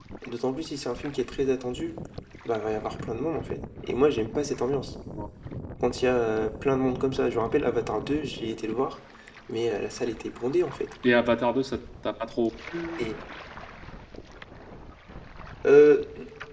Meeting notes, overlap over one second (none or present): none